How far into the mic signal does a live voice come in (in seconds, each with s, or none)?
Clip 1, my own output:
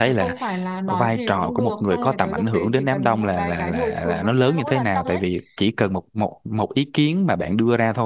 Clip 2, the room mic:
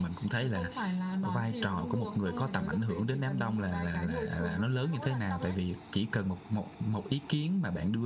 none